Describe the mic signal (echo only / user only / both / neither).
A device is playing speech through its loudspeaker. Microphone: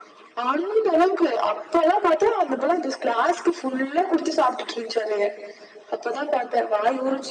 echo only